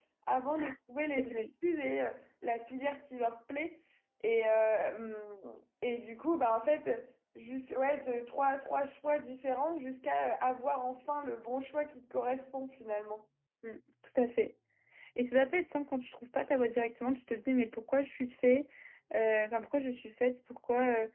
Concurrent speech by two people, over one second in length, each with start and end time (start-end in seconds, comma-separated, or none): none